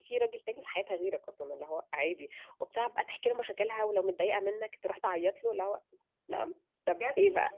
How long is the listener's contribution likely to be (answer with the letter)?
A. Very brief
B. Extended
B